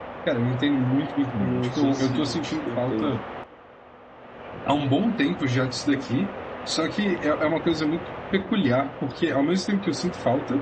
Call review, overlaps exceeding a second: present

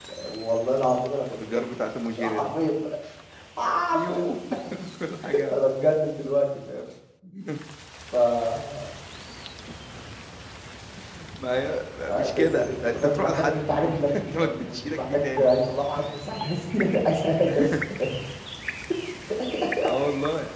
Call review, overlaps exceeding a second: present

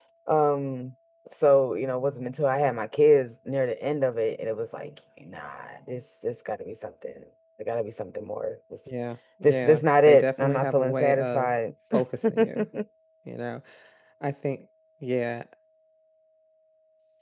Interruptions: present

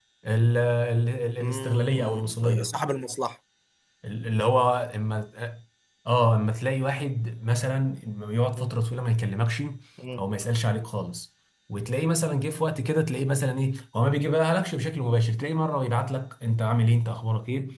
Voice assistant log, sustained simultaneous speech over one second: present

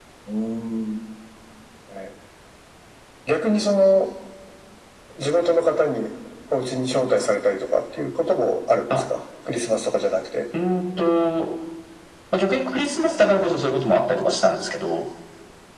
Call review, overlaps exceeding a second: none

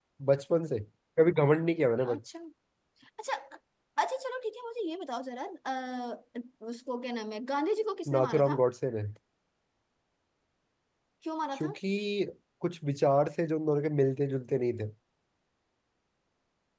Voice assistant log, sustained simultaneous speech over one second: none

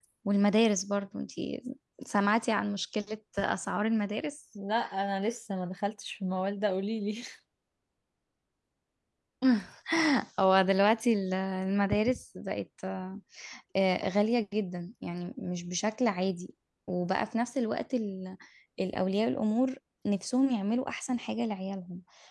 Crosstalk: none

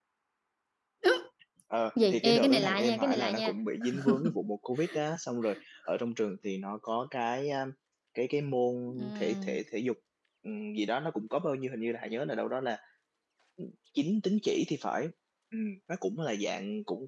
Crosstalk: present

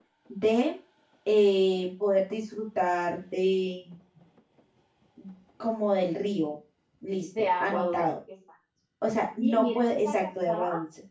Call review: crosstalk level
present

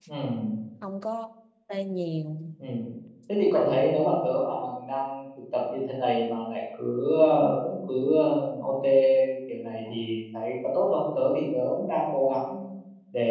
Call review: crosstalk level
none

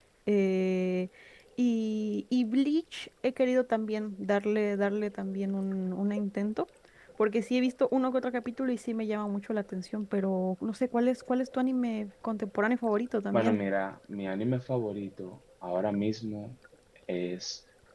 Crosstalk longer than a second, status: none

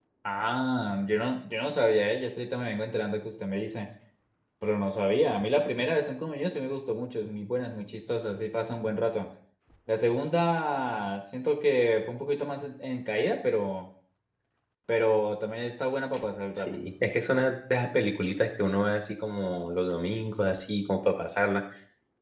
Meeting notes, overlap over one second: none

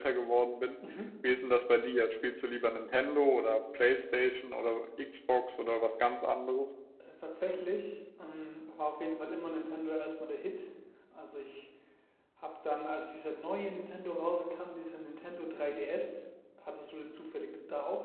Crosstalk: none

